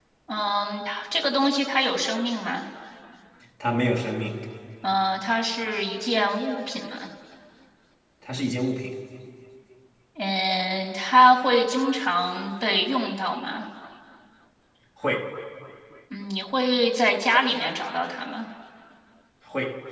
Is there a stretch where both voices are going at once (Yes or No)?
No